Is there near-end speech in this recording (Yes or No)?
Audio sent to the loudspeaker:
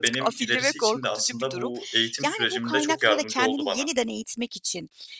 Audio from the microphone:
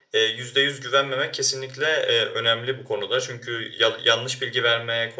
Yes